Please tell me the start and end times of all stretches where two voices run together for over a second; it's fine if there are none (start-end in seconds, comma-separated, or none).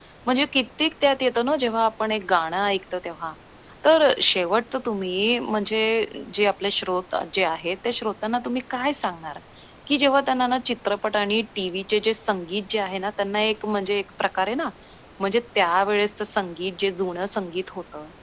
none